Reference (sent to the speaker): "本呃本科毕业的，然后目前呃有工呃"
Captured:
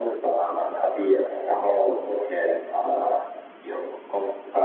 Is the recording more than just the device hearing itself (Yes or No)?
No